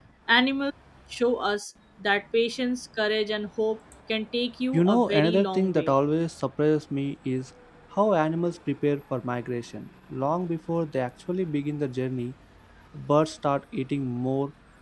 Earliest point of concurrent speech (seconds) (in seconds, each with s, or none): 4.7 s